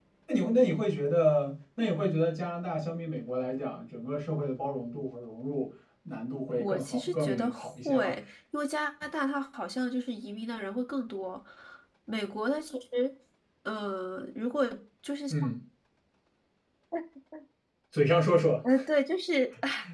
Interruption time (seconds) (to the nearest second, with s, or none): 7 s